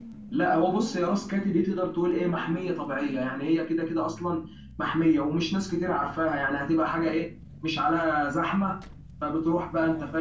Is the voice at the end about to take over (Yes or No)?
No